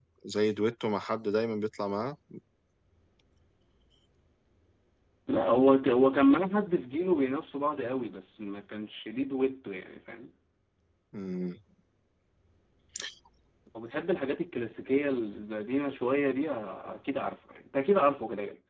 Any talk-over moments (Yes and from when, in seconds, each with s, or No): No